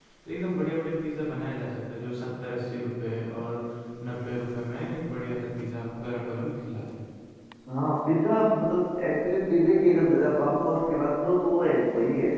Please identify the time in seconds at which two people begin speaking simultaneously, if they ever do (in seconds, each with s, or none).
none